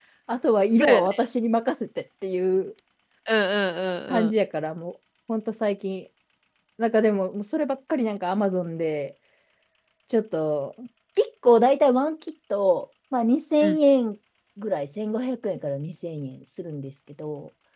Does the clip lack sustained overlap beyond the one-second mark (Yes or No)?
Yes